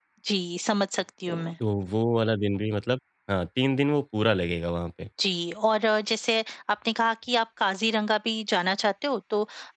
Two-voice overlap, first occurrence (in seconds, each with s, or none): none